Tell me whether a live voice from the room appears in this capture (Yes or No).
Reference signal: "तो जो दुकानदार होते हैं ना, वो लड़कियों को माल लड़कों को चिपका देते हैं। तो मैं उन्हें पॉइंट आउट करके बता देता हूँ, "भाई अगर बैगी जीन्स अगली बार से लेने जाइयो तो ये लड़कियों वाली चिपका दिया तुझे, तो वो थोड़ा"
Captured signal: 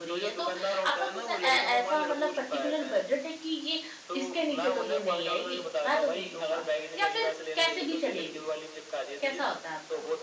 Yes